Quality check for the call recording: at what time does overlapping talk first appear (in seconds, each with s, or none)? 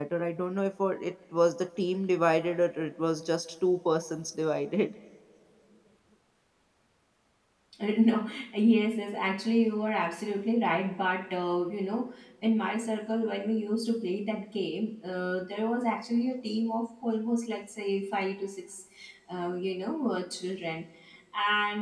none